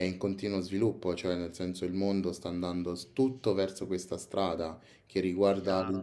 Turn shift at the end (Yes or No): No